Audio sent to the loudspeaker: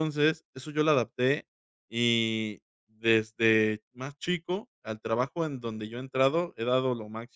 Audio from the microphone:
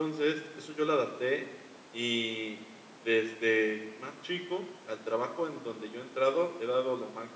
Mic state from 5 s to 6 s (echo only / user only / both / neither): echo only